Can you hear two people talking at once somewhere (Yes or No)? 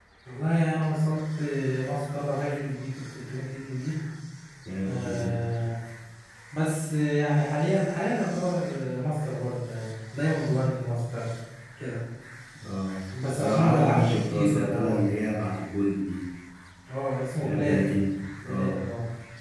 Yes